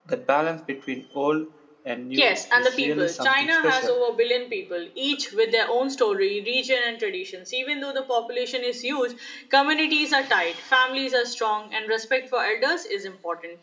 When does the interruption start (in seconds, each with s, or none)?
2.1 s